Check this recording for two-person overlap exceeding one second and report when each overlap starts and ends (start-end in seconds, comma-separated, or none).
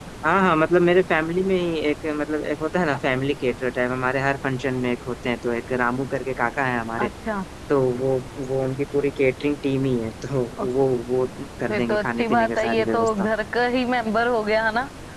11.7-13.3